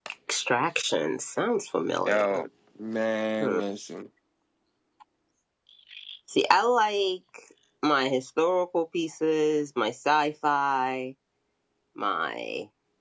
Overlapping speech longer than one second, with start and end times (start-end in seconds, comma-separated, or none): none